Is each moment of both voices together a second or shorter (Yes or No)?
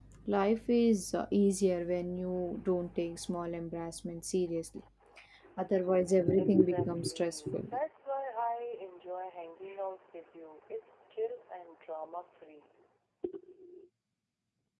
No